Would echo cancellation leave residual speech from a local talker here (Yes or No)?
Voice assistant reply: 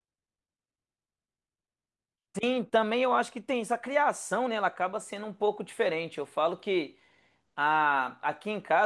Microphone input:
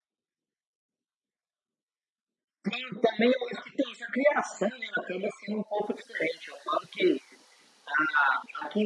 No